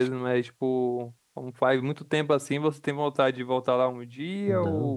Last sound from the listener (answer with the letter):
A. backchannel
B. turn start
B